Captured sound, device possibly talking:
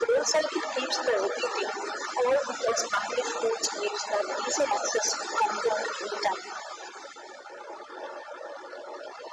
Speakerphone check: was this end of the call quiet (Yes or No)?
Yes